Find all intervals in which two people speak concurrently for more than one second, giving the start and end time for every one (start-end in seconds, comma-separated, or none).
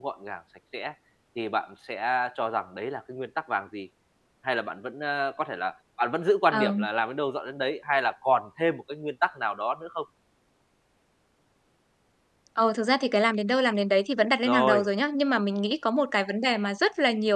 none